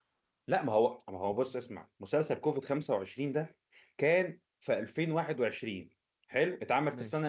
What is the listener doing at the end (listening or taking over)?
listening